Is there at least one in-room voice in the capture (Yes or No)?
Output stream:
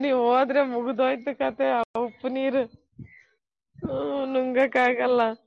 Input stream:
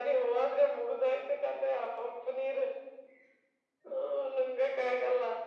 No